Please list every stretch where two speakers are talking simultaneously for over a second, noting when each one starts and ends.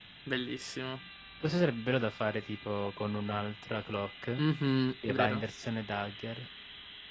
none

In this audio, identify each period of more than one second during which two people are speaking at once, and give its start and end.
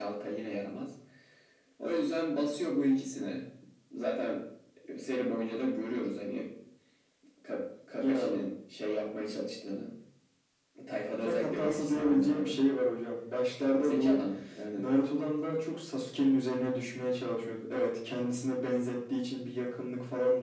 11.2-12.6

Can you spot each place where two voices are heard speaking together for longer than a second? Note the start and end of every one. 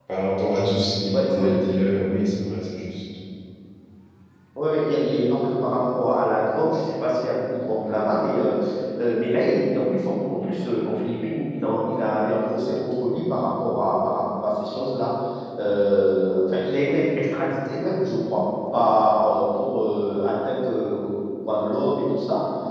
none

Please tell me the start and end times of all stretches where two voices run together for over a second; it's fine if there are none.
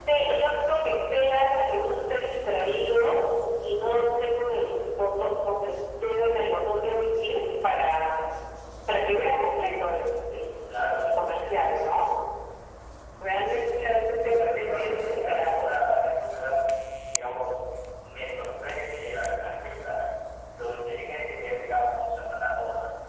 14.2-15.8

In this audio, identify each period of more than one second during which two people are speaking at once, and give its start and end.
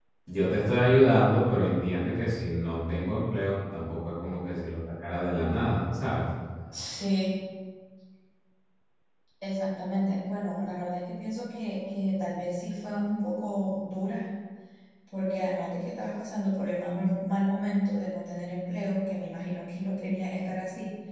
none

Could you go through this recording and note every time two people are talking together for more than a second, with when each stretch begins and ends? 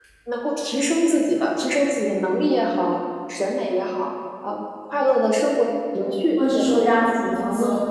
none

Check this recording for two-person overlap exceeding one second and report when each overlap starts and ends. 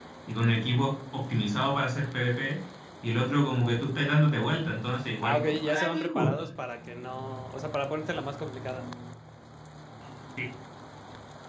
5.2-6.4

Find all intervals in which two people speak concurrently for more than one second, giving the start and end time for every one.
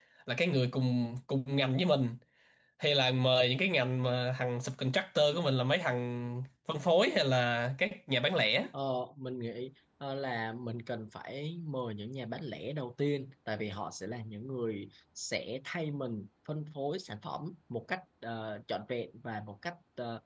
none

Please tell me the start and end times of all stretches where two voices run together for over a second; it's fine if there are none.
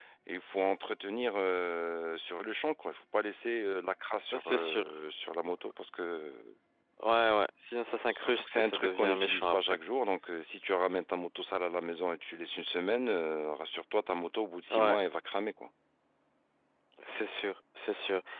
8.1-9.6

